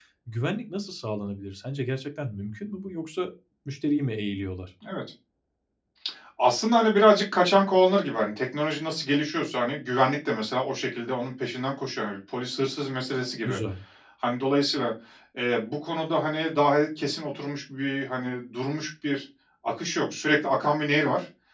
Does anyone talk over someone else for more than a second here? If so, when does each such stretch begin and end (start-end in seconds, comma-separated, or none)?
none